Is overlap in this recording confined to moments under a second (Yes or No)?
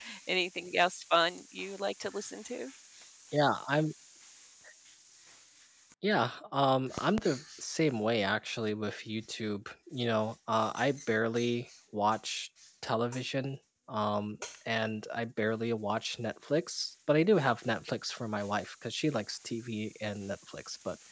Yes